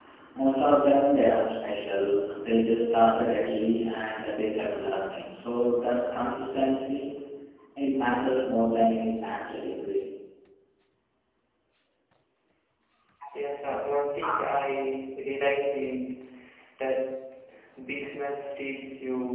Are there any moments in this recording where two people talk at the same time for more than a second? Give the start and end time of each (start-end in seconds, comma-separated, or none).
none